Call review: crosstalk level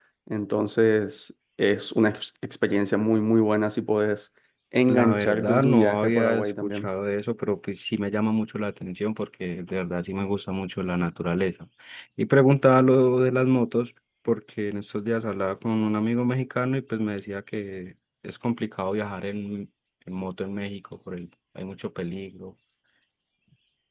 present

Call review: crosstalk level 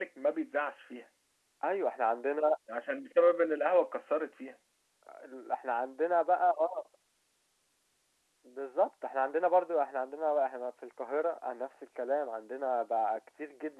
none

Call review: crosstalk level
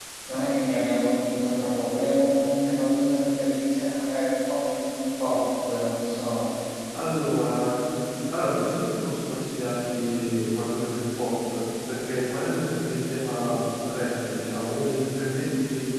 none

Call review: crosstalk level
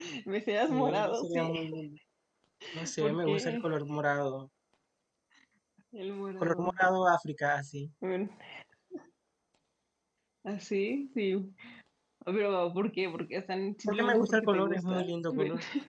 present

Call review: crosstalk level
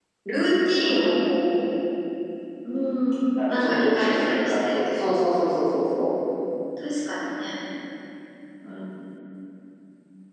present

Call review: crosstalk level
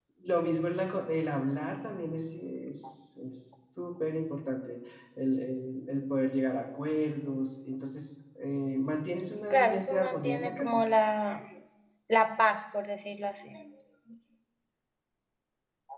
present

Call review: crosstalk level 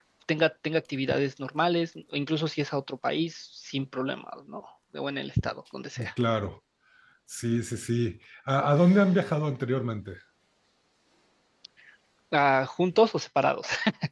none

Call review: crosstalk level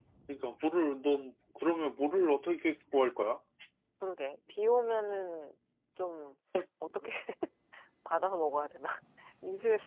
none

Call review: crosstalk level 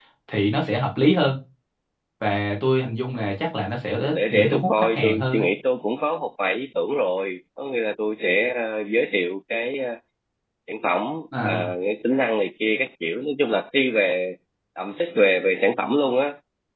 present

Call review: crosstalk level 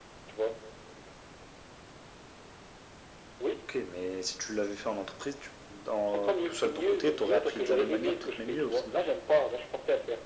present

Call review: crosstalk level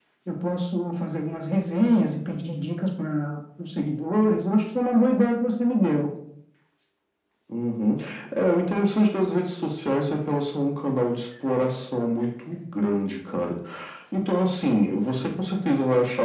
none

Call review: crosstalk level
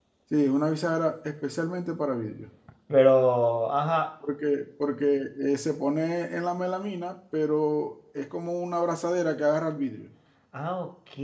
none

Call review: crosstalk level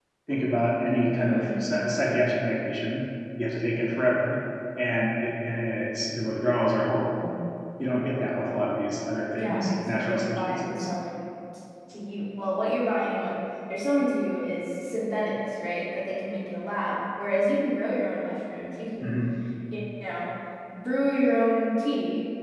present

